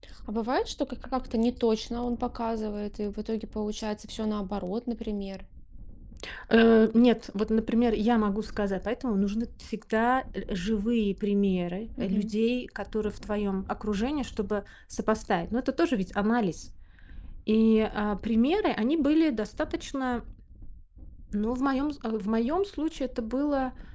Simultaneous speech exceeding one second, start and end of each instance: none

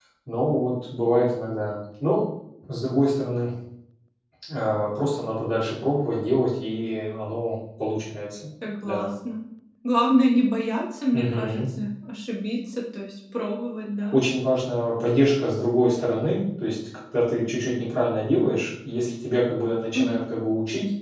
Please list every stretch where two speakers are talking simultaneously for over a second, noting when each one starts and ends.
none

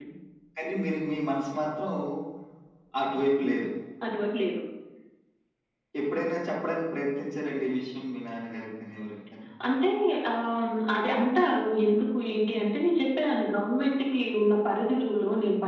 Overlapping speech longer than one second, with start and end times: none

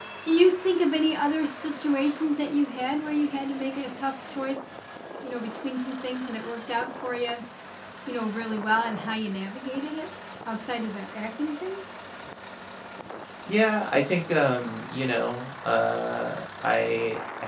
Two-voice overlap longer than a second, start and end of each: none

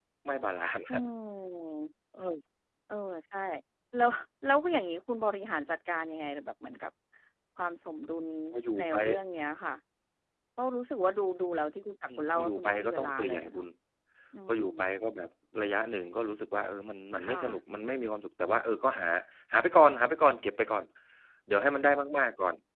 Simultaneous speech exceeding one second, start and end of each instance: 12.2-13.7

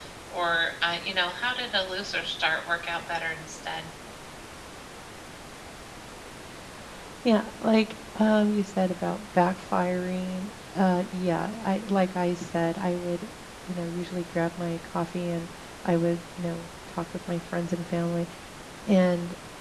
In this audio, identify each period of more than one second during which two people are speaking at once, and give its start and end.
none

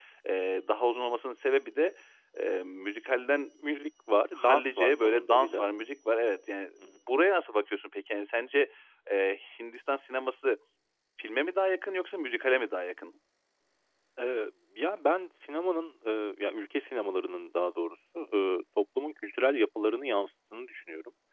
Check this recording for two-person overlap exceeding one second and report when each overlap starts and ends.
4.4-5.7

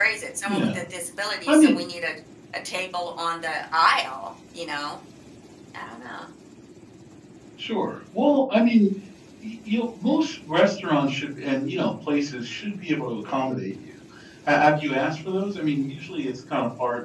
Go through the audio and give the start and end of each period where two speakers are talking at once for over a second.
none

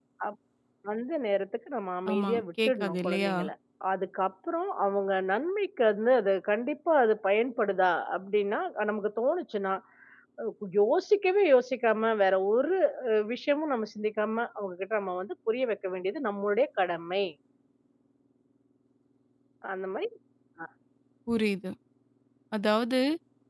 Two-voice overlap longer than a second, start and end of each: 2.1-3.3

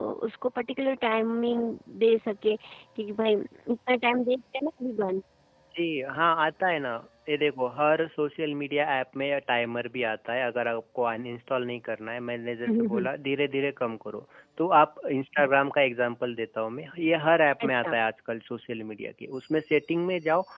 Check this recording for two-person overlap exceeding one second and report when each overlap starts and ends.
none

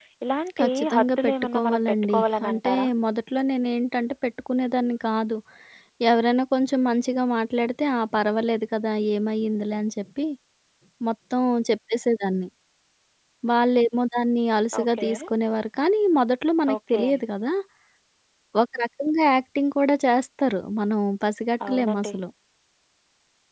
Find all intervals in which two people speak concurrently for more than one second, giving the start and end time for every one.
0.6-2.9

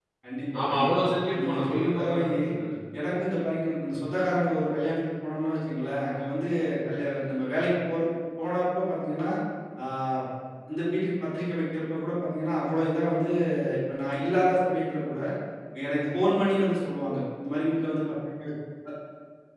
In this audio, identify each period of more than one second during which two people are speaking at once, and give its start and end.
0.5-2.2

